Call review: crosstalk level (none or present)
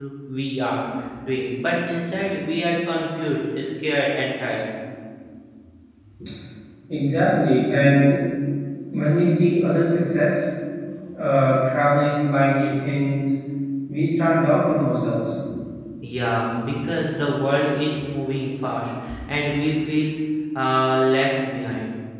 none